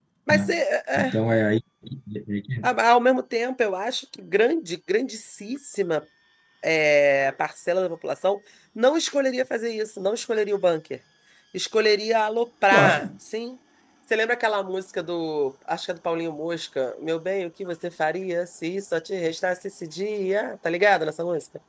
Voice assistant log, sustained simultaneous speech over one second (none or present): none